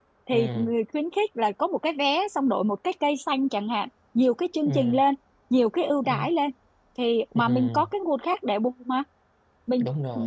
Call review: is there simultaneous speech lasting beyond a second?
No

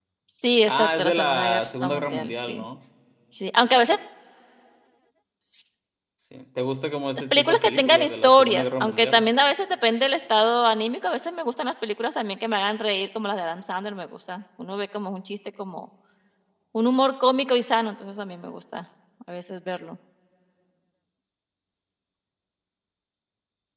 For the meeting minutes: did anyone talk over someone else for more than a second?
Yes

